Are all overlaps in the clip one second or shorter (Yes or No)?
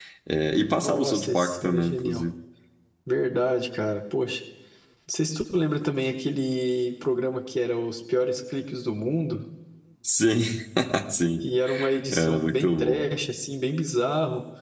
No